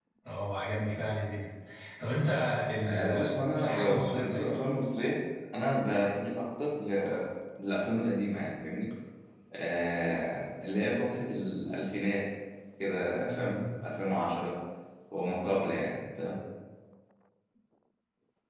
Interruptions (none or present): present